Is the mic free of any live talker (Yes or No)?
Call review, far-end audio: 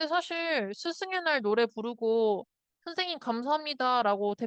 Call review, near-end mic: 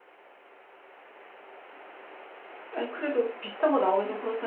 No